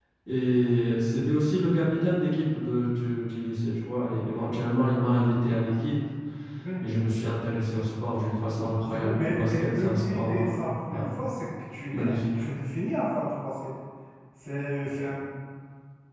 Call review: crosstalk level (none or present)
present